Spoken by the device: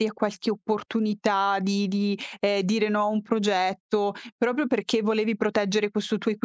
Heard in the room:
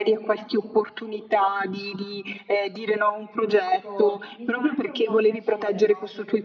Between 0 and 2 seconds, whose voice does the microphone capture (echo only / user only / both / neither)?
echo only